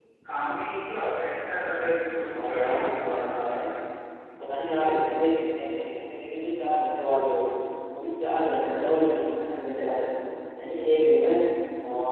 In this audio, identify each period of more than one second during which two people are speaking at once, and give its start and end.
2.3-3.7

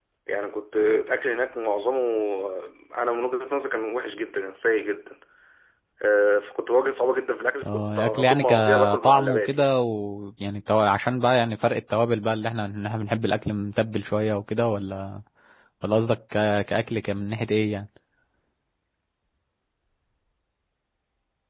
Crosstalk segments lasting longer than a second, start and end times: 7.6-9.8

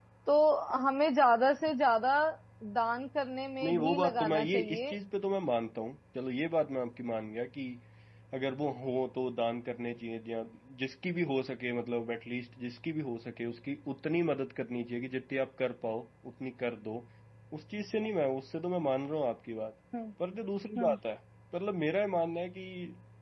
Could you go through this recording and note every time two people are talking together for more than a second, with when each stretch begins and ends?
3.6-4.9

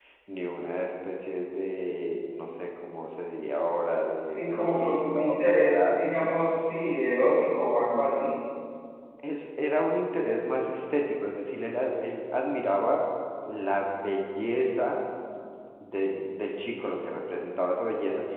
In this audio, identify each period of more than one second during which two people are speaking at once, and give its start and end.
4.4-6.3

